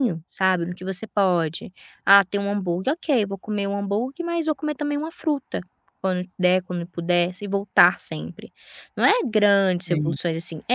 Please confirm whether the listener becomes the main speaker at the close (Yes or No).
No